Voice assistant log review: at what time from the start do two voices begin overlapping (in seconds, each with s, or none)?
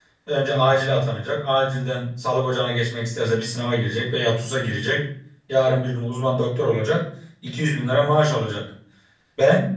none